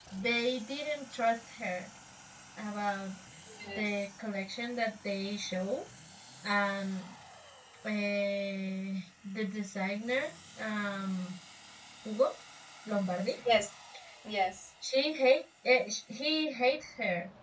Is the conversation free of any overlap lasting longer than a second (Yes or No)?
Yes